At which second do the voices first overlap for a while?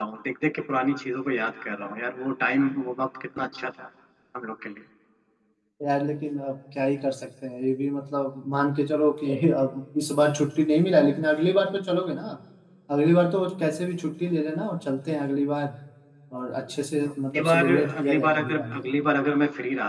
17.3 s

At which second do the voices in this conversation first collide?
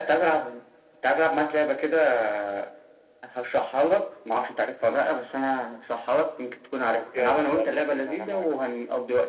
6.9 s

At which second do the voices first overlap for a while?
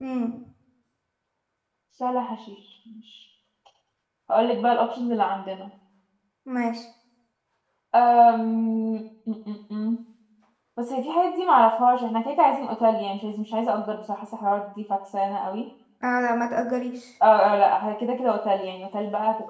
none

